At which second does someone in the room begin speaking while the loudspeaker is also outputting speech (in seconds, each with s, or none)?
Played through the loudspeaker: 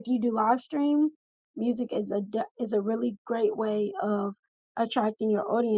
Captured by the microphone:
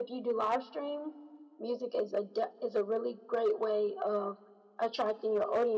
none